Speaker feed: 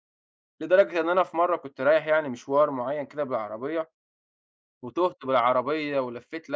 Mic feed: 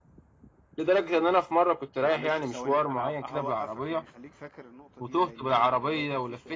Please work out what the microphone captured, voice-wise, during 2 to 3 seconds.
both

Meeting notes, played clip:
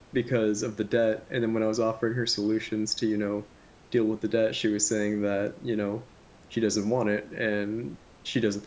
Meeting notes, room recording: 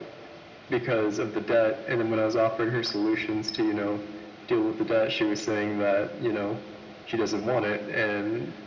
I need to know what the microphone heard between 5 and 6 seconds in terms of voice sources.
echo only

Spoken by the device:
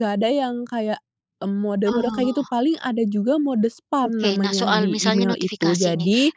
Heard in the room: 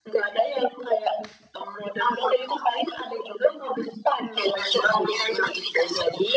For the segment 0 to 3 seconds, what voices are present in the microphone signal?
echo only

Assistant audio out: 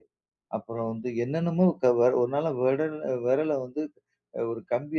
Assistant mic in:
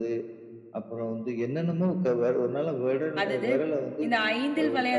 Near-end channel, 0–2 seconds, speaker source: echo only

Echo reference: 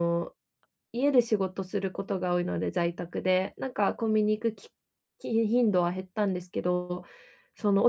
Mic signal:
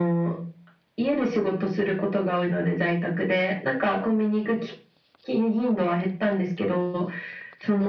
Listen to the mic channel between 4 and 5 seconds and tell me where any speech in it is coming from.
echo only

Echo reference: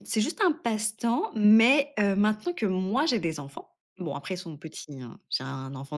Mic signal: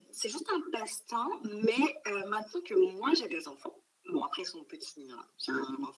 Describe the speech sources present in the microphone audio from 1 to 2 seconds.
echo only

